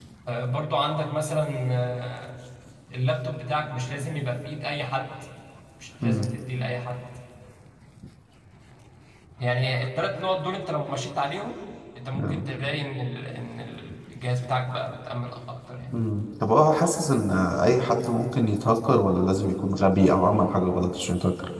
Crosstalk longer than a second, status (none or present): none